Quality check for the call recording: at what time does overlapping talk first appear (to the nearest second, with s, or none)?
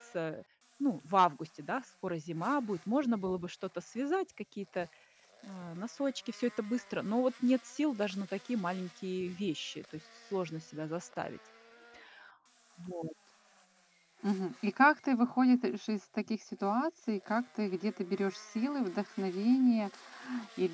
none